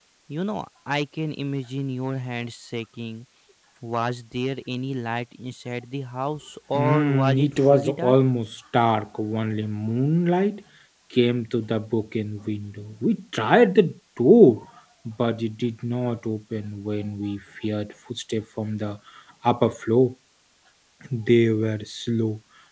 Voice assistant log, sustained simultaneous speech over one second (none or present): present